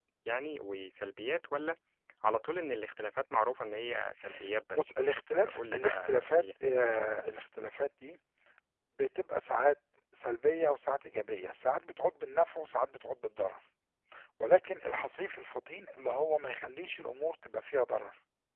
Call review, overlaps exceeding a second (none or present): present